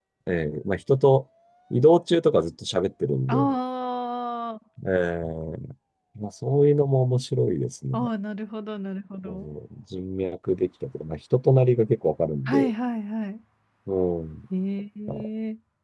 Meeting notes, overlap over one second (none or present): none